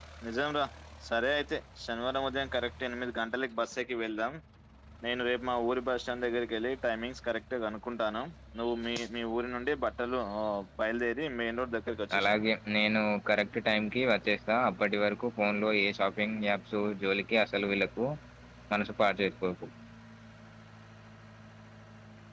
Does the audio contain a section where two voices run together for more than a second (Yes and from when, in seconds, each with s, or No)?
No